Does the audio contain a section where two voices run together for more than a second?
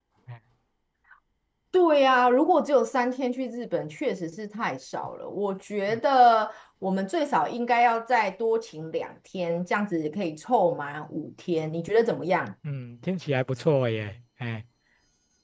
No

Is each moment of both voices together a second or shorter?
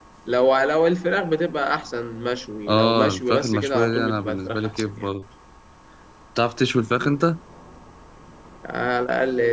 No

